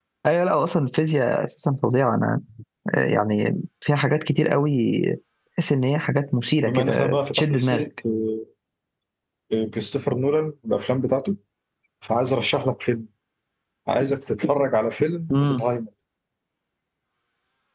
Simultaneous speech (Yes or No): Yes